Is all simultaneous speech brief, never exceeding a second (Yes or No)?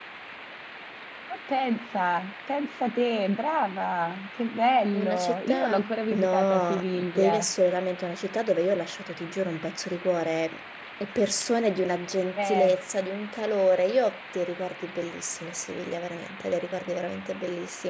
No